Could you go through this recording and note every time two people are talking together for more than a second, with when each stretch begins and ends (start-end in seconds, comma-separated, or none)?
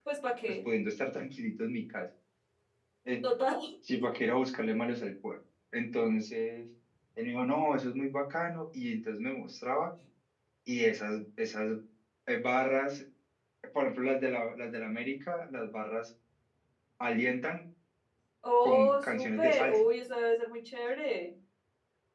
18.6-19.9